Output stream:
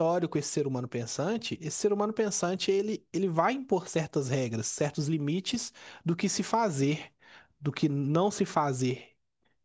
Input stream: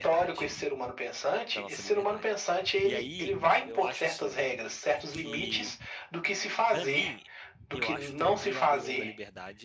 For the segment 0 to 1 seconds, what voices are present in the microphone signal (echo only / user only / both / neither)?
both